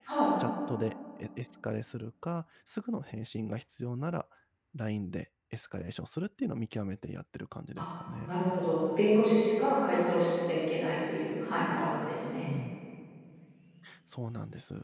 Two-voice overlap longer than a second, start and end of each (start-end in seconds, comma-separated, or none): none